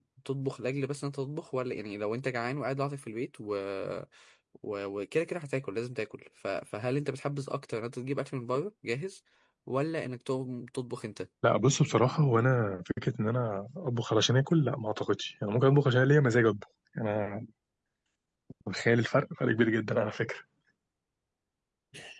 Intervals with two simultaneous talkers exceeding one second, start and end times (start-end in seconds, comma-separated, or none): none